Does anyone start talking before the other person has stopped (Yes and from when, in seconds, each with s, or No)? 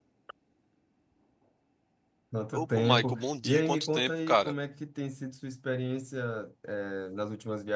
Yes, from 2.5 s